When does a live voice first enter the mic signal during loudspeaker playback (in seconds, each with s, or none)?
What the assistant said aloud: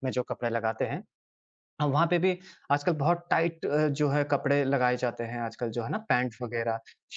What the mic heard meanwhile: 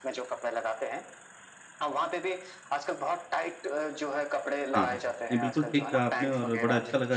4.7 s